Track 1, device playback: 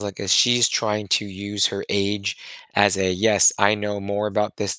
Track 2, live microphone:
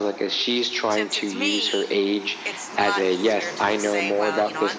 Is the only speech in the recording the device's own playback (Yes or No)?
No